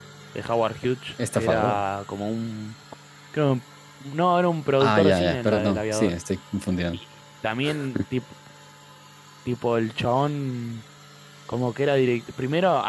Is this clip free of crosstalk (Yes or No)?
No